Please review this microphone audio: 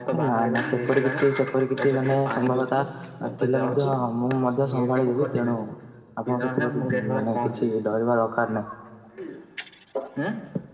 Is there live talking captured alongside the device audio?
Yes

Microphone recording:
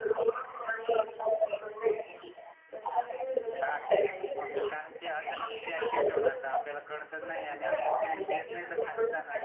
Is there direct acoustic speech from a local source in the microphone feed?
Yes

